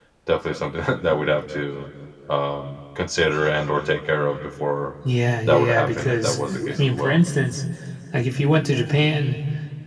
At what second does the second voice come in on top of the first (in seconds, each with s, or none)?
5.5 s